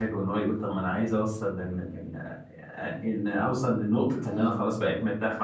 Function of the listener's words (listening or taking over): listening